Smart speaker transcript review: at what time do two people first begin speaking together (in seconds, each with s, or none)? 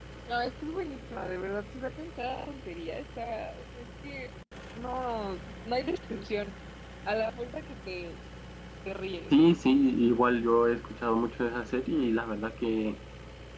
none